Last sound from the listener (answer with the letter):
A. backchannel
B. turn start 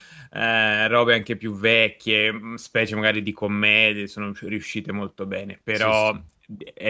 A